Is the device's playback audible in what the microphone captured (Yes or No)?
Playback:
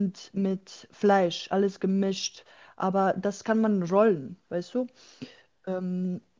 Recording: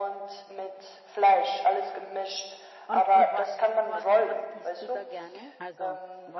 Yes